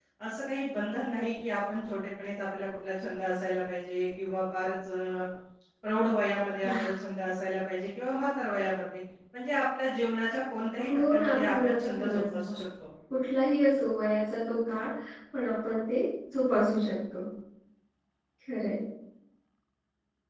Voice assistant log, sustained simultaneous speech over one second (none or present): present